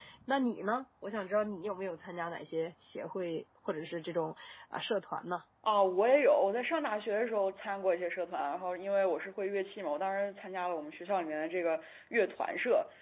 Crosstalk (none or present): none